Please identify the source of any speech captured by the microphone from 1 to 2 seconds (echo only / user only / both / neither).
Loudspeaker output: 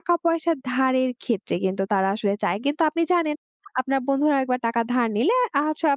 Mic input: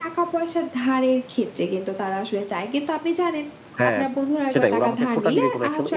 echo only